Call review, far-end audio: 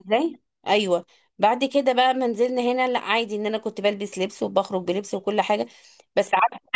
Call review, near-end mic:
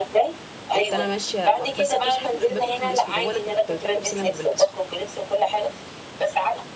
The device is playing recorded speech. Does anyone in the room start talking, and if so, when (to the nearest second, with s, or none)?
1 s